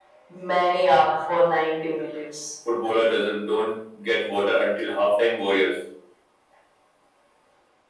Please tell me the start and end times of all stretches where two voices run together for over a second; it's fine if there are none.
none

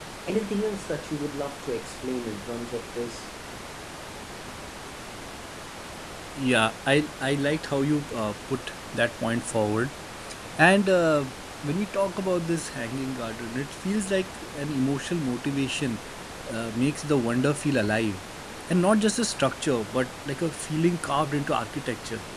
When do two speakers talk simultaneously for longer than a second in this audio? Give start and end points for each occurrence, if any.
none

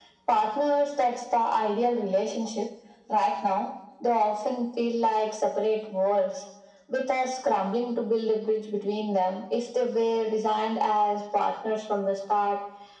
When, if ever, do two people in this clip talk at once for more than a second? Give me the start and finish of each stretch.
none

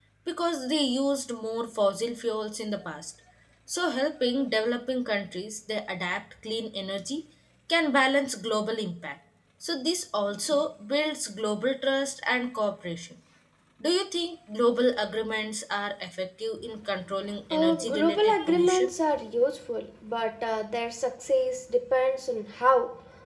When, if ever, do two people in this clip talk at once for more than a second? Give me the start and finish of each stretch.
17.5-18.9

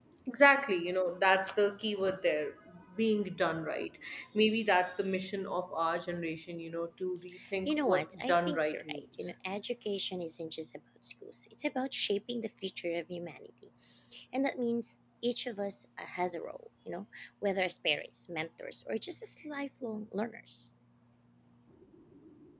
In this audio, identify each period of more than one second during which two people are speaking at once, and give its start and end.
7.7-9.3

